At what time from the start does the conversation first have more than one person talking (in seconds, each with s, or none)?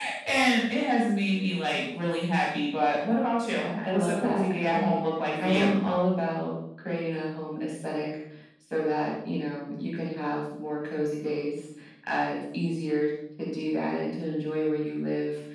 3.5 s